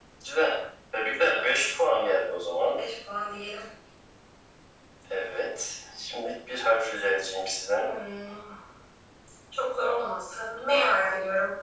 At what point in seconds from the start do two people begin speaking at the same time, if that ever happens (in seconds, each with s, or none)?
none